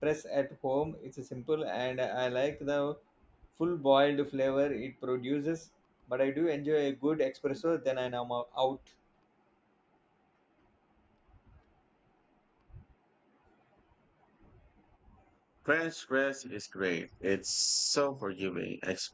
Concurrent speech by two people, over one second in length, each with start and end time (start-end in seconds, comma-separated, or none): none